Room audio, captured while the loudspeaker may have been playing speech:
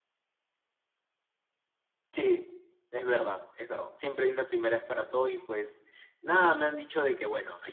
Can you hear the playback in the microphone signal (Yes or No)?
No